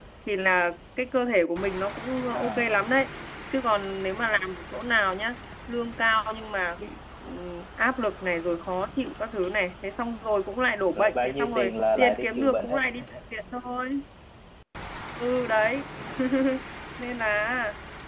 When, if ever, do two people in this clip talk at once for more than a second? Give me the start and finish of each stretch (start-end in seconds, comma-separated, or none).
10.9-12.8